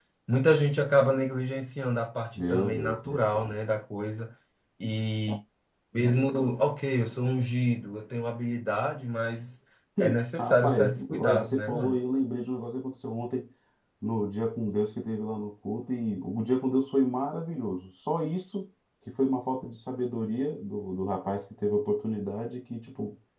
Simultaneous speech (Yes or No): Yes